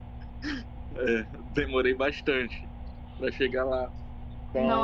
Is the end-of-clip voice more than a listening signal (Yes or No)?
Yes